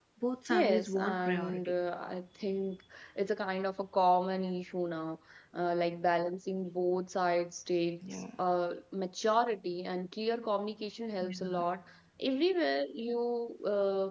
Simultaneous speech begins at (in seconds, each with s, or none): 0.5 s